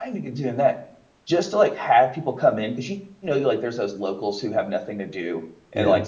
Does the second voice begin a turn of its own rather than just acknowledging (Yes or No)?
No